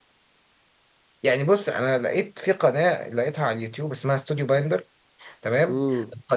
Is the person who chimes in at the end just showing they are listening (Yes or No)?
Yes